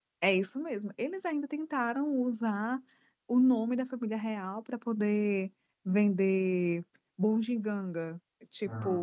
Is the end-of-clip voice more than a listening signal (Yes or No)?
No